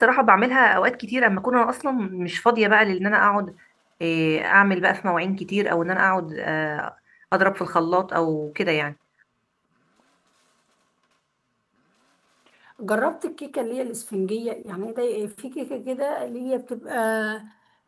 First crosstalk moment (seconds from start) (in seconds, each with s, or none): none